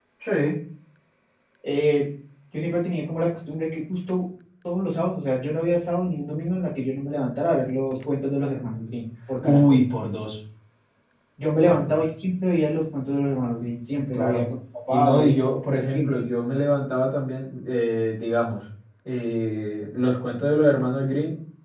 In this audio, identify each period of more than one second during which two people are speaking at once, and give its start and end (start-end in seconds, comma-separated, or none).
14.9-16.2